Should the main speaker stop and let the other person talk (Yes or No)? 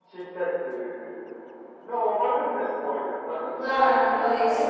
Yes